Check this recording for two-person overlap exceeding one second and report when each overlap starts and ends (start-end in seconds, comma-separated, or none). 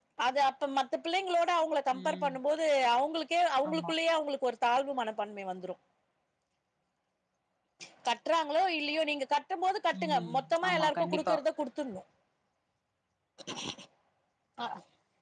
10.0-11.3